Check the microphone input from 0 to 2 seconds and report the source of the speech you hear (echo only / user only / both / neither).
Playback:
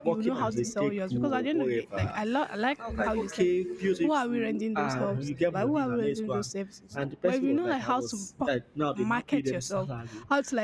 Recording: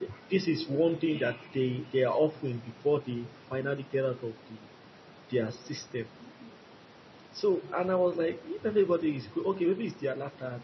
user only